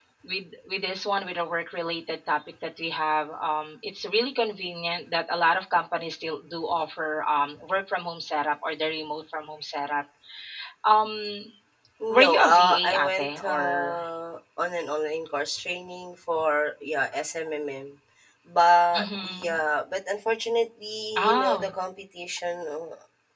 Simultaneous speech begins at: 12.2 s

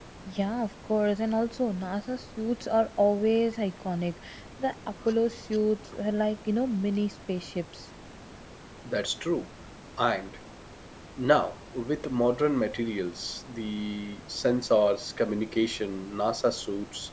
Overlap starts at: none

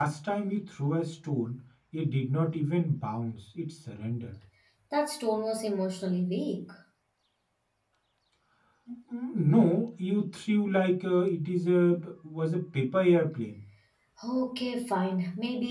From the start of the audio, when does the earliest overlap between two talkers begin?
none

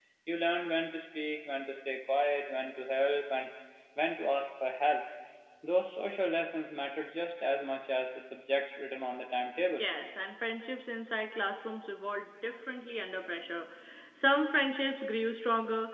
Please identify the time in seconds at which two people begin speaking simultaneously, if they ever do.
none

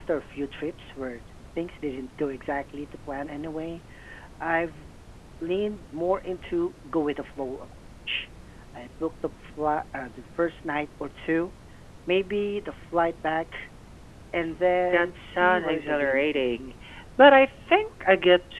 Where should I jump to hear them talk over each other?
14.9 s

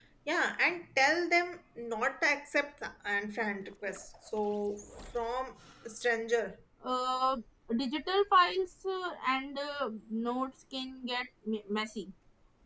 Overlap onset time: none

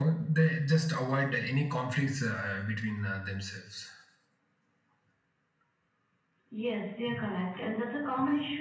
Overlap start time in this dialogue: none

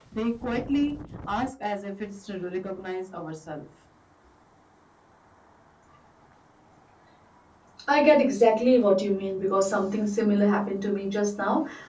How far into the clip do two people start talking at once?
none

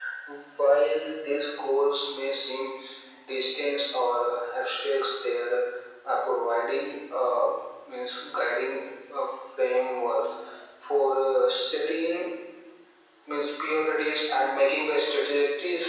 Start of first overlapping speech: none

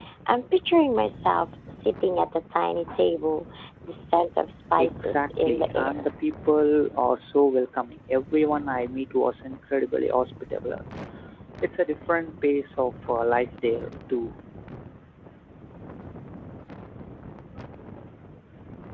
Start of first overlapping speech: 4.6 s

